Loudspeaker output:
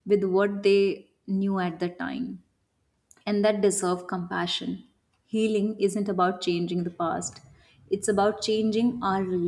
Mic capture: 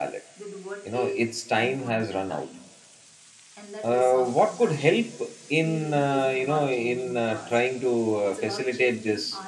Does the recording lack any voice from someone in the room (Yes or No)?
No